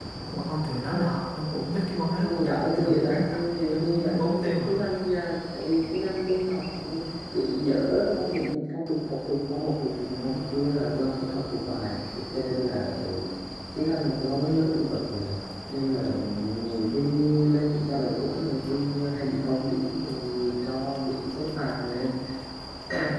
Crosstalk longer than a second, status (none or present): present